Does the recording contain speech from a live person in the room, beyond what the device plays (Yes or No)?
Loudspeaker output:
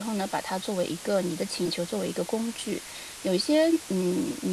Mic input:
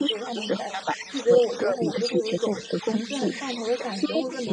Yes